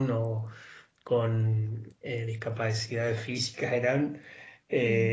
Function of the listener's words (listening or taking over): listening